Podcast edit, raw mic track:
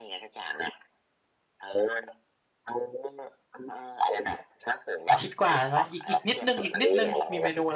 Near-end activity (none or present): present